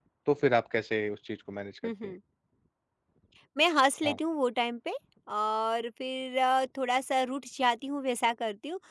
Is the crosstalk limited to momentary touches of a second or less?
Yes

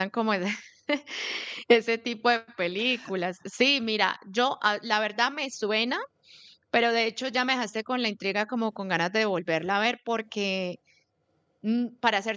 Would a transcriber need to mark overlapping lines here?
No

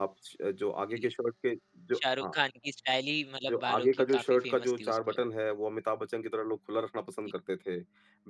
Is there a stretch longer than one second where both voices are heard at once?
Yes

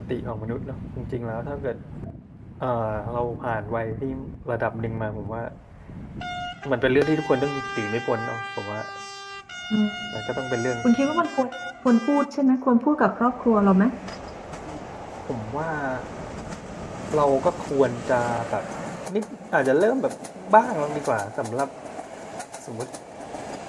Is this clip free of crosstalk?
Yes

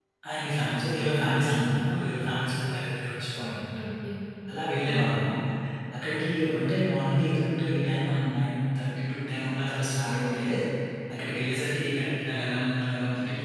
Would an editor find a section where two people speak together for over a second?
No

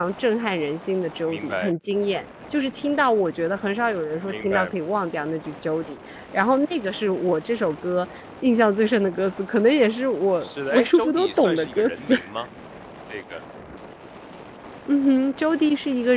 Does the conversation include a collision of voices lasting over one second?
Yes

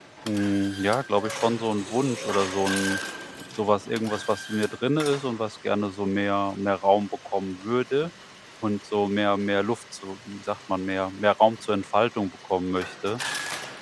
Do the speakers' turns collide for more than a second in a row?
No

